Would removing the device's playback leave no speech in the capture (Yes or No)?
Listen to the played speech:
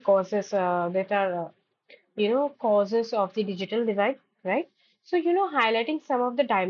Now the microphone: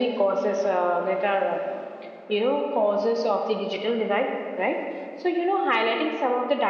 Yes